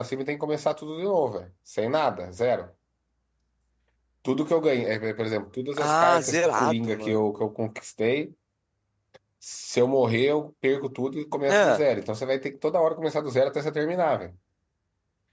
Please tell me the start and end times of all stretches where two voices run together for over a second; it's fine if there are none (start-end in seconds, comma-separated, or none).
5.8-7.2